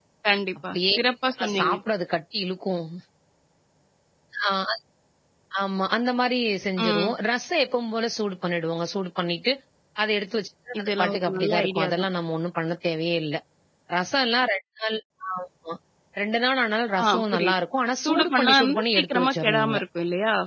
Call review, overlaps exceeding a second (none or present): present